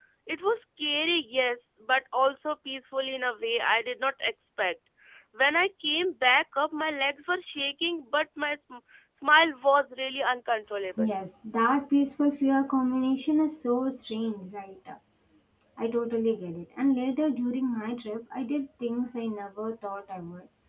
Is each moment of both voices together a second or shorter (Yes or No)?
Yes